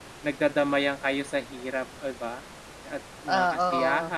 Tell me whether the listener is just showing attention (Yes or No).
Yes